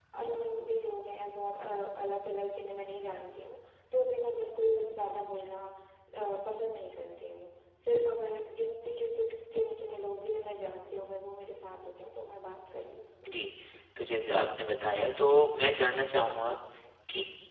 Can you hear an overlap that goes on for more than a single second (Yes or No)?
No